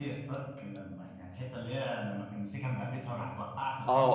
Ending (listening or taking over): taking over